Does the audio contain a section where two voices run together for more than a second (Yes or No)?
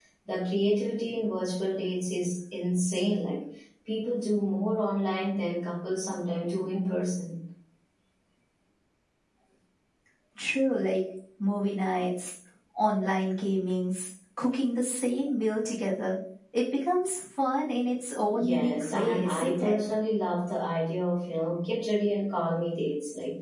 Yes